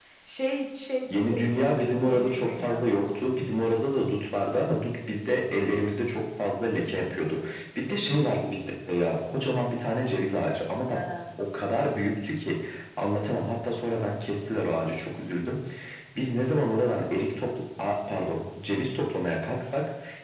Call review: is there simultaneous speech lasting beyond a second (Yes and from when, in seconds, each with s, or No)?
Yes, from 1.3 s